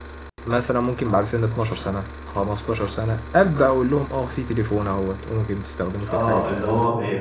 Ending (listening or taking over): taking over